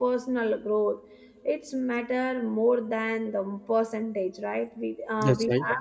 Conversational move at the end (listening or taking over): listening